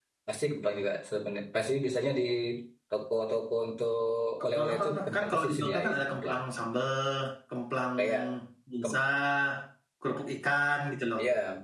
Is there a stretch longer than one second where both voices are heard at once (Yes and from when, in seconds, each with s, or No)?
Yes, from 4.4 s